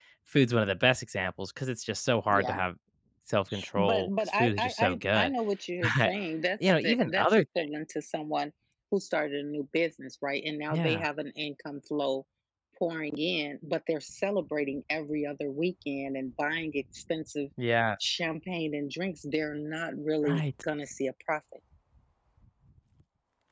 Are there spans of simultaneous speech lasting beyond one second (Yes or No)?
Yes